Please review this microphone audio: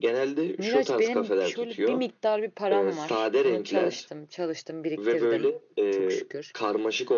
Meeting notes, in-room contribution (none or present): present